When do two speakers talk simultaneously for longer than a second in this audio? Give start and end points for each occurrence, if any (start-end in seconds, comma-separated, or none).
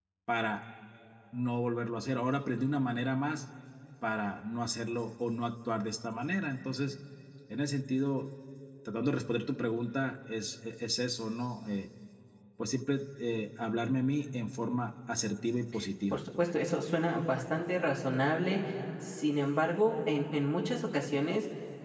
none